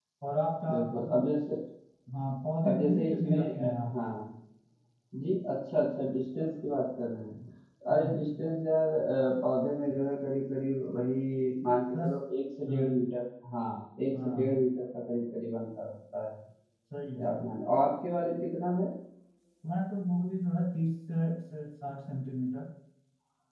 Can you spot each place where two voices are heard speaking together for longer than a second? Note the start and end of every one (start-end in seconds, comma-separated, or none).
2.7-4.0